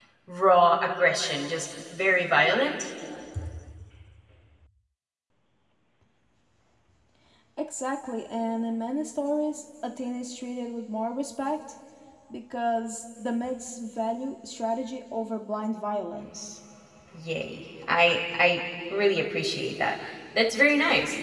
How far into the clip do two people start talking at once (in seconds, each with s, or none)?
none